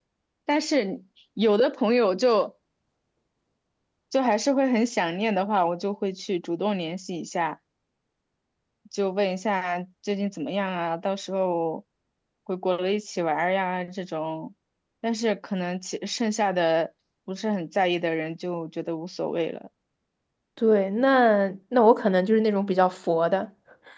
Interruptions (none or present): none